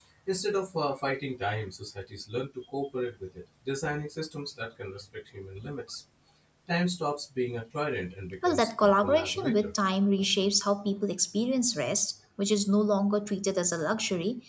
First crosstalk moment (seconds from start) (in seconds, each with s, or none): 8.4 s